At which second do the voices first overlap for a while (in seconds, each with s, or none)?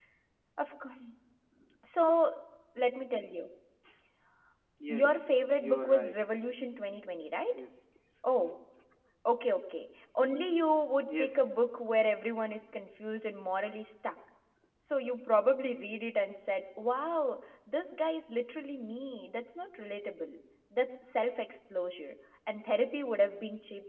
4.9 s